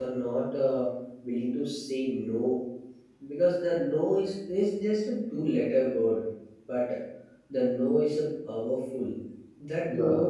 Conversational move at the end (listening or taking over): listening